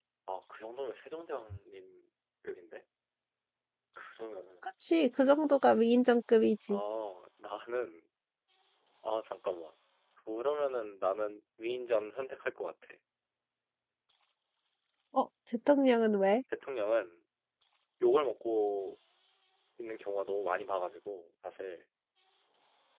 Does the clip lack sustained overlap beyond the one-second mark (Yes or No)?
Yes